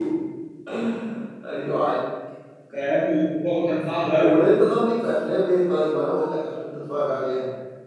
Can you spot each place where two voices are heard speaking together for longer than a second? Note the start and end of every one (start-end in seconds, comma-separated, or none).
none